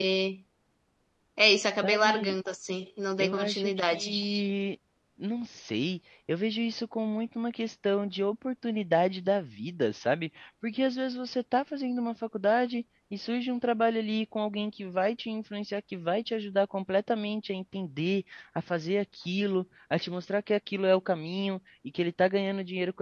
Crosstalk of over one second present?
Yes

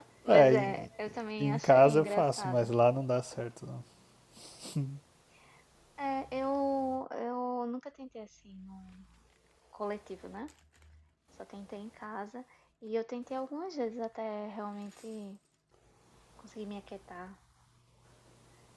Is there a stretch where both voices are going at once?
Yes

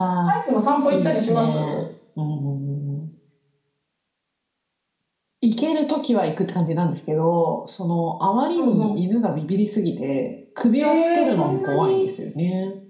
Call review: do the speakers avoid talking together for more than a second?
No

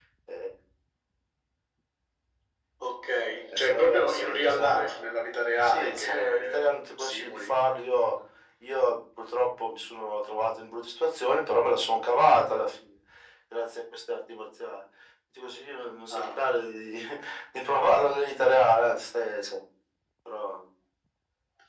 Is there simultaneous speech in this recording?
Yes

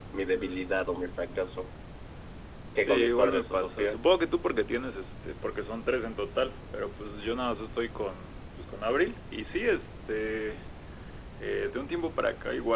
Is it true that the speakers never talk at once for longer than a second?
No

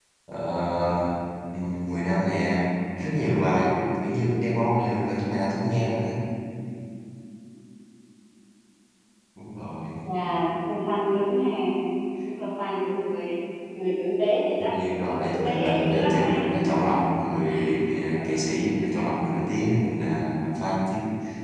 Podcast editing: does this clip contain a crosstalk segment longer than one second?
Yes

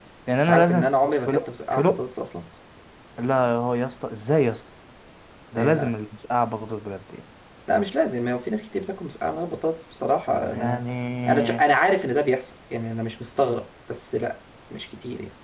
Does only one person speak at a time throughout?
No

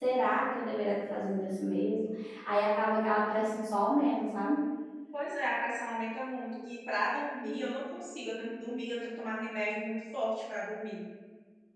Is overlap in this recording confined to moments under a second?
Yes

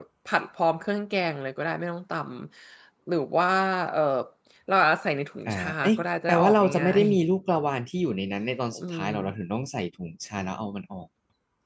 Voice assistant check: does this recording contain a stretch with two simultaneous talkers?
Yes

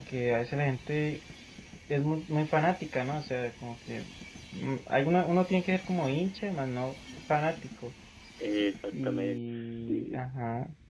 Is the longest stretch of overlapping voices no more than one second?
No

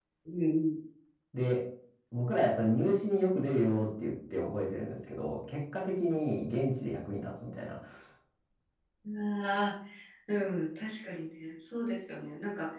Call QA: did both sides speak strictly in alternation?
Yes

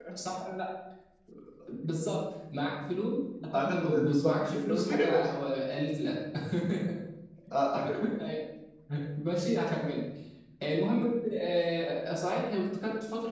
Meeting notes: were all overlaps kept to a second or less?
No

